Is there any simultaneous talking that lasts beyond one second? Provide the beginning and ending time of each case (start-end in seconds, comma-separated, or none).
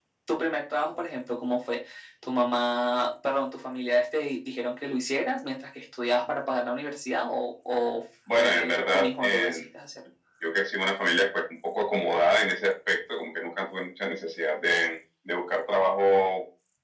8.4-9.7